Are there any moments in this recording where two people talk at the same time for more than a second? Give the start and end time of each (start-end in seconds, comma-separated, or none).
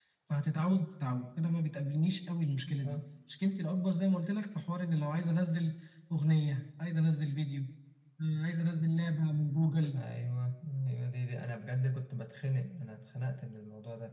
none